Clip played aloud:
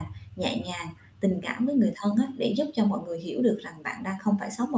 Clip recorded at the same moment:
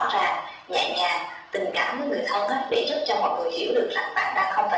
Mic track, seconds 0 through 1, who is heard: echo only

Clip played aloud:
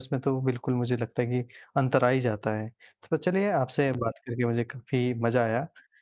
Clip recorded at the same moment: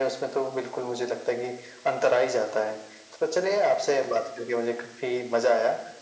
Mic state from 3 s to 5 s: echo only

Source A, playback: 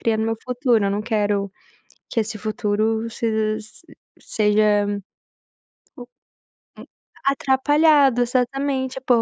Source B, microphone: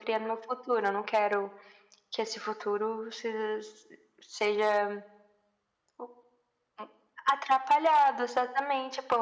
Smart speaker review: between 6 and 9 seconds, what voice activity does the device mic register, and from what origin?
echo only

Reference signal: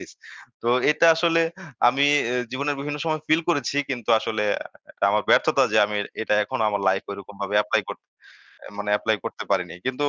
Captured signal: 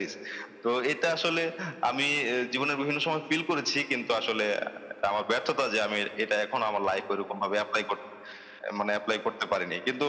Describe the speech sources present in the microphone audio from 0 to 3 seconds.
echo only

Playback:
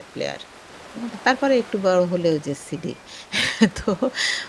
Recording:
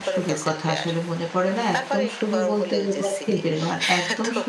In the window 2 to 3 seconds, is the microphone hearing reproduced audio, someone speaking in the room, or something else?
both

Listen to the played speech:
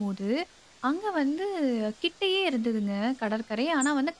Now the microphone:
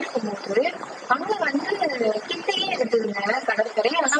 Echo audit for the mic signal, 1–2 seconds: echo only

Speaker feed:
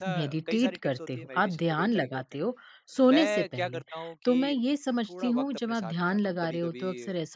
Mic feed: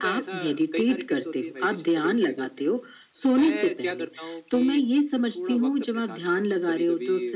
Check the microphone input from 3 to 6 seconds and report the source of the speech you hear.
echo only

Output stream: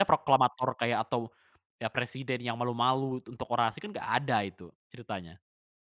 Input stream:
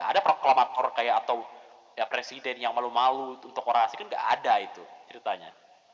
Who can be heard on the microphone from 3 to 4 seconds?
echo only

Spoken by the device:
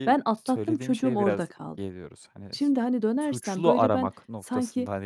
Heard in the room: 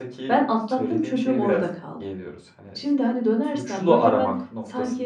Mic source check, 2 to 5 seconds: echo only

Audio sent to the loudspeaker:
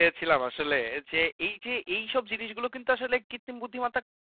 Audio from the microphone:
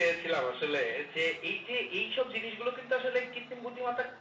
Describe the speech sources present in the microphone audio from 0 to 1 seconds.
echo only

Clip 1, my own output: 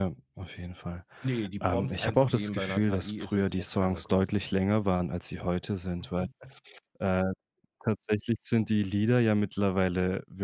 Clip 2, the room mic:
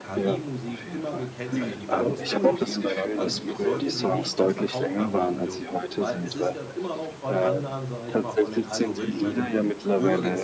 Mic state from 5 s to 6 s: both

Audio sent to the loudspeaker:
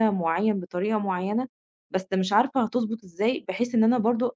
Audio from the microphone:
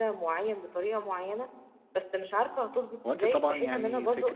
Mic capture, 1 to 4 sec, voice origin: both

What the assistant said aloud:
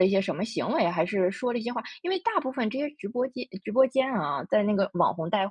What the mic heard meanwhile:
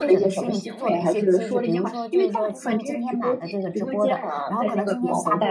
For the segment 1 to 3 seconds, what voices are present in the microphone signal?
both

